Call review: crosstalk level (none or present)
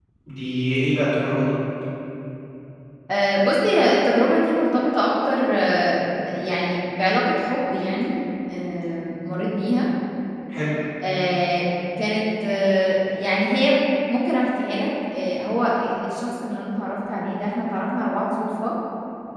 none